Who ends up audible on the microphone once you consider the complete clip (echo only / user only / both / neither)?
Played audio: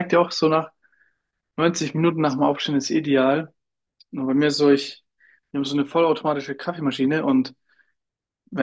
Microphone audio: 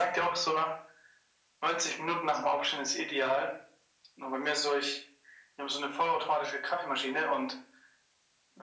echo only